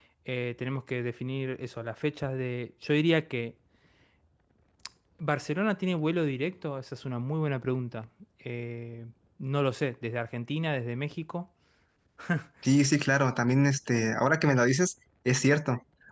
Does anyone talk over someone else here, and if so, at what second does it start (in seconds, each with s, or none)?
none